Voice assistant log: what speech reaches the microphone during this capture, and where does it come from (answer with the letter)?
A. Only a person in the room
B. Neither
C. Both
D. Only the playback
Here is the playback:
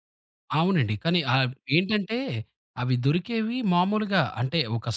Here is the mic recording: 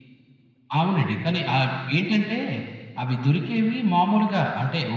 D